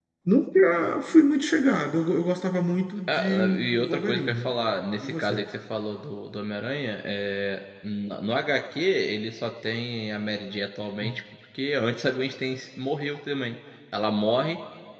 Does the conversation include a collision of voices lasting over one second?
Yes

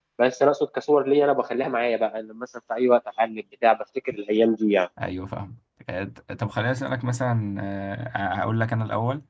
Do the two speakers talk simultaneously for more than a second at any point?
No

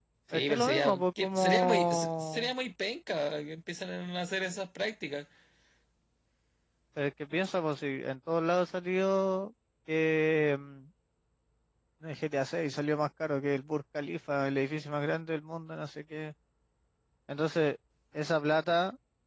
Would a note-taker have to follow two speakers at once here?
Yes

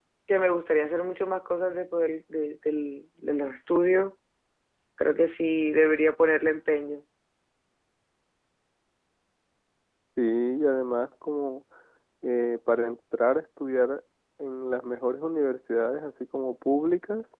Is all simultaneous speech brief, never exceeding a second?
Yes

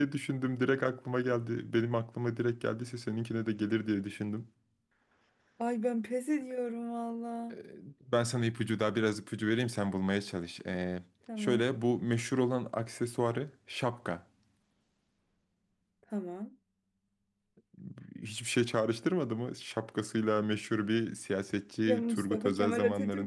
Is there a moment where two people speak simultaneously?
Yes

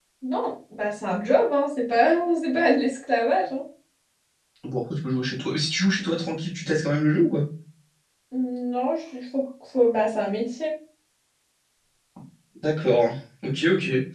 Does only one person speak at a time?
Yes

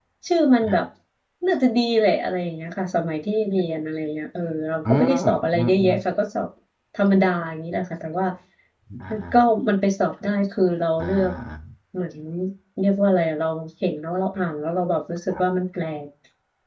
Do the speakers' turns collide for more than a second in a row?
No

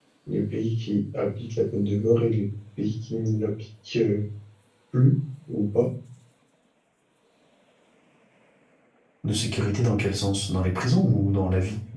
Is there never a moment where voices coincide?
Yes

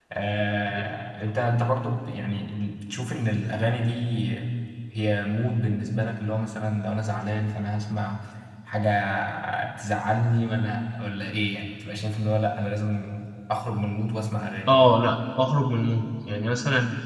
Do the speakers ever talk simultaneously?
No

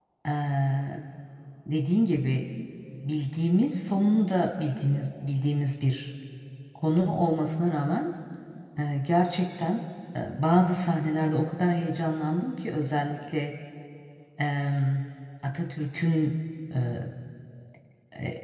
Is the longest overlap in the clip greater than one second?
No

